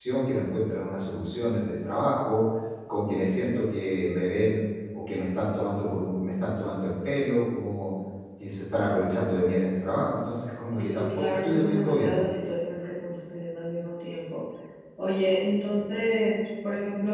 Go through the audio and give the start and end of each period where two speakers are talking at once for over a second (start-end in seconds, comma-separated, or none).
10.7-12.2